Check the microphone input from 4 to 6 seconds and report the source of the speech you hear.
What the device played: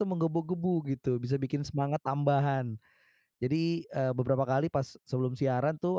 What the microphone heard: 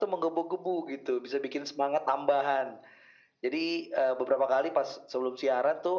echo only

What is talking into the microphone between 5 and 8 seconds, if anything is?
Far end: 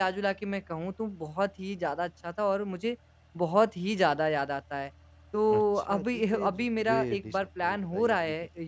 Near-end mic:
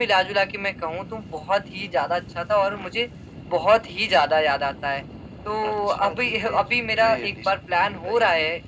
echo only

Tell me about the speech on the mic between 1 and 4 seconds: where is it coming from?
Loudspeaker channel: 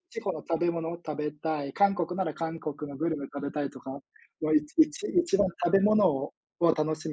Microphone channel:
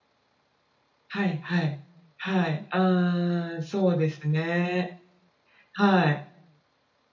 user only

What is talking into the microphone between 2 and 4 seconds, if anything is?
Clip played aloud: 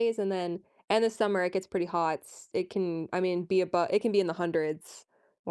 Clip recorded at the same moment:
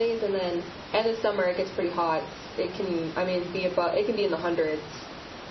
echo only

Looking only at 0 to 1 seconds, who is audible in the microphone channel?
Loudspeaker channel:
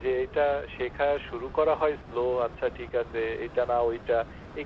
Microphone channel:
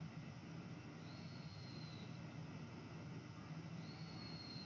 neither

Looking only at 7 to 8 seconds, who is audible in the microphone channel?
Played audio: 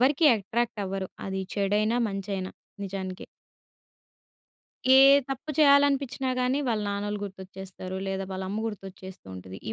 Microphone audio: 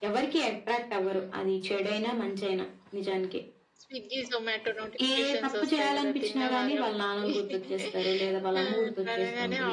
both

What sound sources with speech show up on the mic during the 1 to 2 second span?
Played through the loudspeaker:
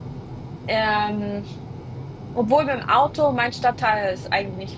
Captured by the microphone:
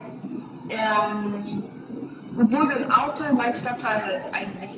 echo only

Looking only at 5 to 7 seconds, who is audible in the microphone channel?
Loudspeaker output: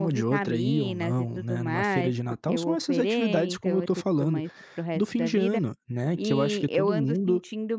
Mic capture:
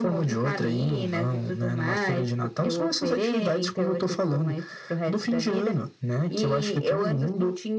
echo only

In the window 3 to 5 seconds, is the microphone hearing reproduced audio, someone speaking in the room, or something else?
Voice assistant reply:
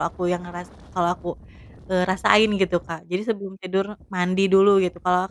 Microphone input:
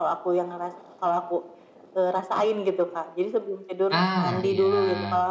both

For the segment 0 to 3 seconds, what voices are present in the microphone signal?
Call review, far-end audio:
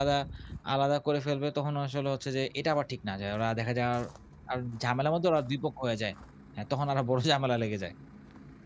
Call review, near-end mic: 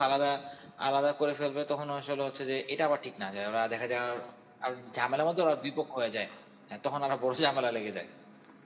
echo only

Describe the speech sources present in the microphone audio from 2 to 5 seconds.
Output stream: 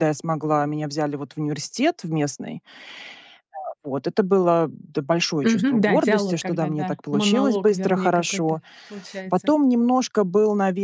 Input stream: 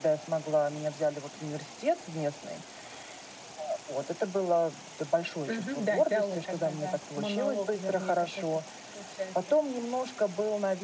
echo only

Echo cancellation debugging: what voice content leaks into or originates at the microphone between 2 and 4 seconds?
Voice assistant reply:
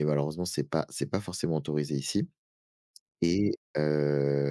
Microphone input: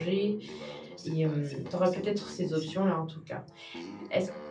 both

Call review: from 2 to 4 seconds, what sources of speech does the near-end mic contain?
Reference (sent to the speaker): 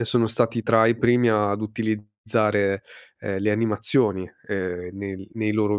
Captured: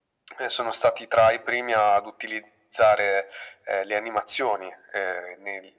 echo only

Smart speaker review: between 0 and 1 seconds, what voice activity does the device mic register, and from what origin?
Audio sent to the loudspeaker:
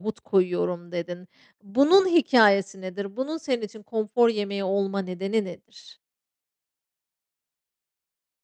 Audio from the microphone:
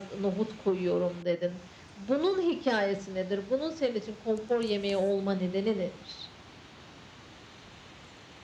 echo only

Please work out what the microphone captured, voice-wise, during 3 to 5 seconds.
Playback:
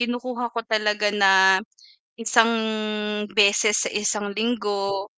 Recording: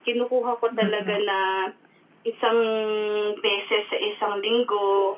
echo only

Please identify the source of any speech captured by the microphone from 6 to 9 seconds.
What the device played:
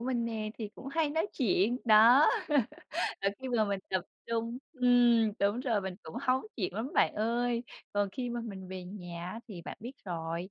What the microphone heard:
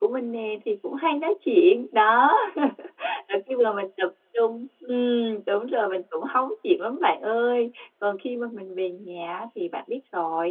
echo only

